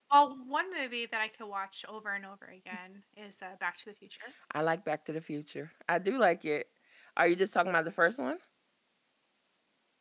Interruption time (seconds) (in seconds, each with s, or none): none